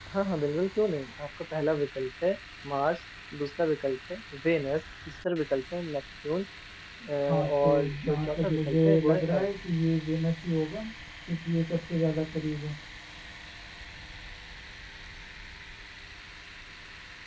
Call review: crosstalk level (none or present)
present